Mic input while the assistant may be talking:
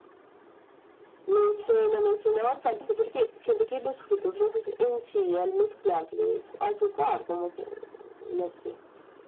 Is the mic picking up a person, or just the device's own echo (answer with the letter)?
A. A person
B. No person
B